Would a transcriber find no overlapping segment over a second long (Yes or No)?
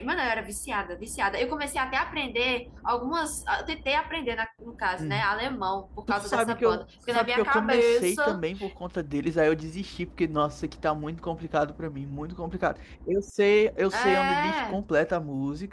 No